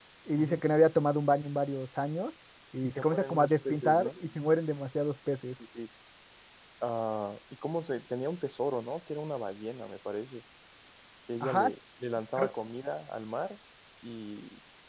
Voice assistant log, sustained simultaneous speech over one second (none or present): present